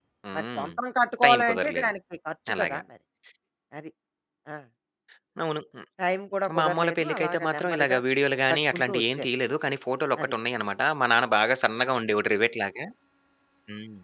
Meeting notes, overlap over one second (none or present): present